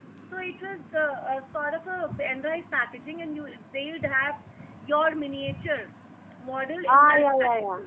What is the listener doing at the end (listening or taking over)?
taking over